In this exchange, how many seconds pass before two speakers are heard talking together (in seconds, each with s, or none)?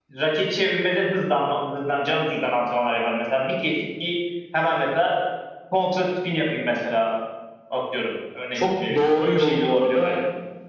8.5 s